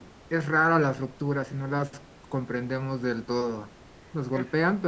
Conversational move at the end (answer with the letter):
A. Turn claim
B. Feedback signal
B